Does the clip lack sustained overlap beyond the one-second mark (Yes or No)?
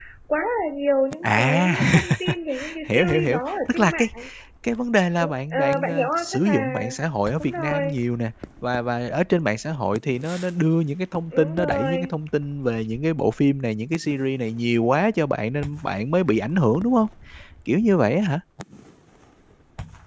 No